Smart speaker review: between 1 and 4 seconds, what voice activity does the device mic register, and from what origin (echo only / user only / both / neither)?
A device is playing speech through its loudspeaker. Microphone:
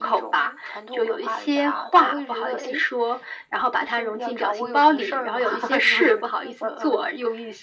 echo only